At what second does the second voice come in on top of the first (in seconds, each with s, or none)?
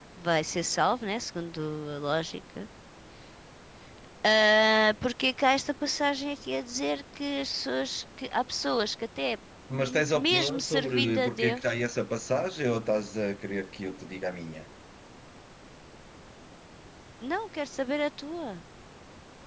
9.8 s